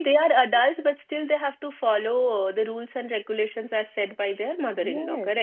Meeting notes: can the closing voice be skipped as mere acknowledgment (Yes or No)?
No